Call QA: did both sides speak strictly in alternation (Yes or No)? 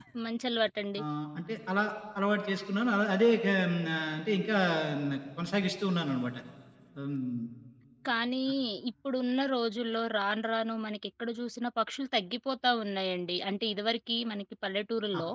Yes